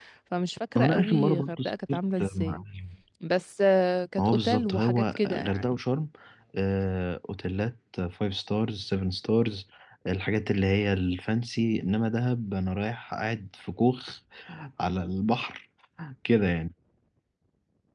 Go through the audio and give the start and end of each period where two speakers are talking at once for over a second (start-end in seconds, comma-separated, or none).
0.8-2.6, 4.2-5.6